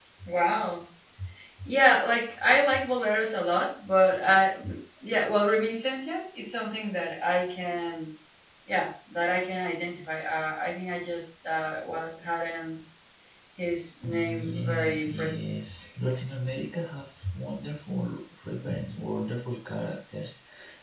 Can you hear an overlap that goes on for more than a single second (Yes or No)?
Yes